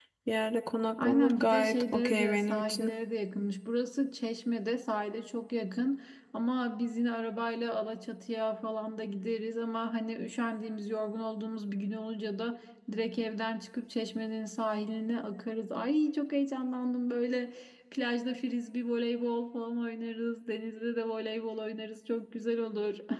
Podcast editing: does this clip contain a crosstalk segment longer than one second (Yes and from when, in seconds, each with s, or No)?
Yes, from 1.0 s